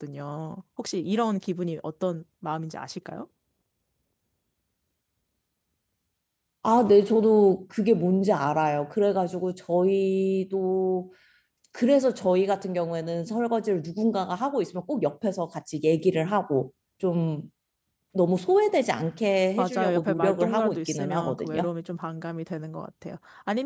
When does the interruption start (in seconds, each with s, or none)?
19.6 s